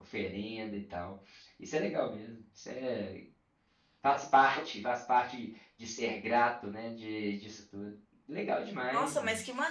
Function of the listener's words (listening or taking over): taking over